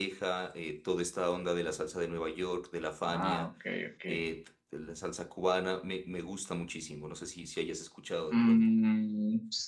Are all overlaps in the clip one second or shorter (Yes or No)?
Yes